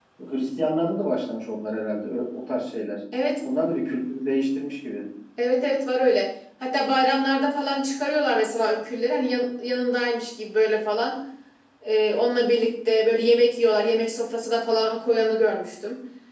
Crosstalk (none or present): none